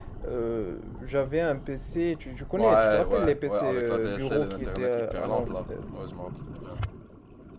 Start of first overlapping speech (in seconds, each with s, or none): 2.6 s